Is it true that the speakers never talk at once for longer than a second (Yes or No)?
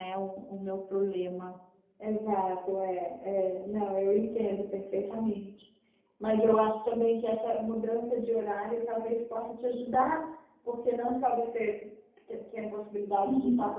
Yes